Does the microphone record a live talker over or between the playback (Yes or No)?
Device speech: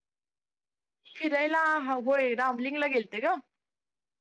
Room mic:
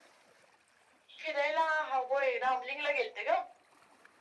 No